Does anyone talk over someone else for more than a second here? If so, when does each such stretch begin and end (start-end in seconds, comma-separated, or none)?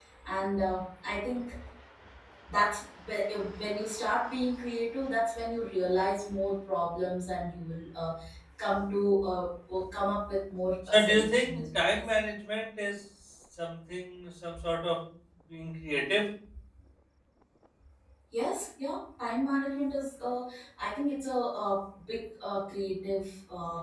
10.9-12.1